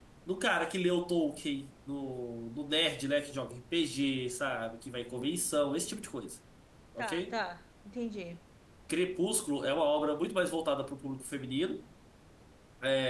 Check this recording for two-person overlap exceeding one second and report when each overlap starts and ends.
none

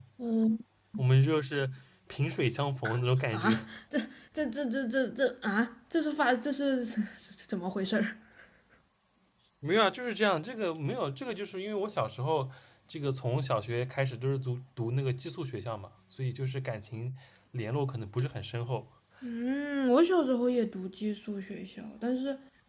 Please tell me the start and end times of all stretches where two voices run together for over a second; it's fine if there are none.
none

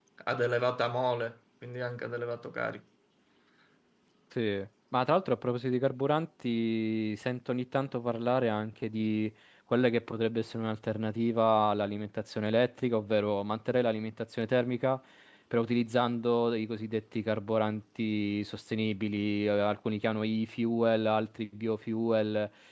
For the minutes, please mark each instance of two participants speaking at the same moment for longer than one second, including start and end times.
none

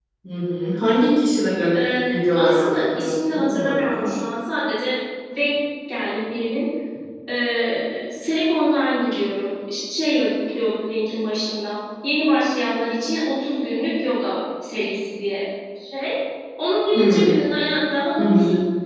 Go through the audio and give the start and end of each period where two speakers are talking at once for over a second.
1.8-4.1

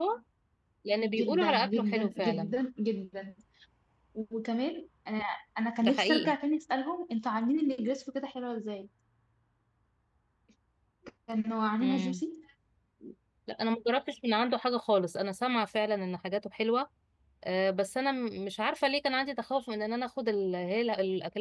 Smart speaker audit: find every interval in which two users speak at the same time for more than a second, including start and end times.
1.0-2.5

